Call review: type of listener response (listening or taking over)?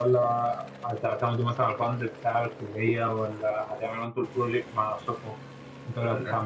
listening